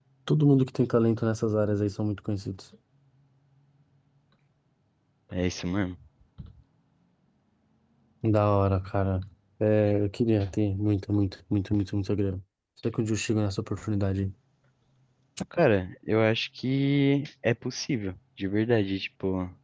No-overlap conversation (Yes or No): Yes